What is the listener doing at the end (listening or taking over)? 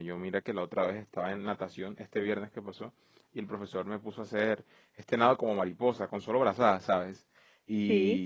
listening